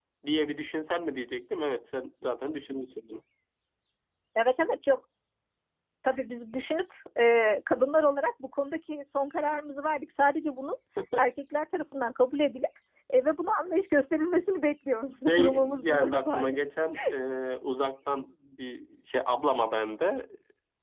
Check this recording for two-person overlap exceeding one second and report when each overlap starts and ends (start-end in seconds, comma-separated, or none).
15.3-16.6